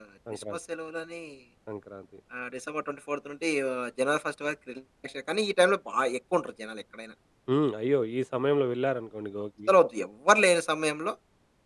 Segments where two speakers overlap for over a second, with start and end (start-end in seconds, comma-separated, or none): none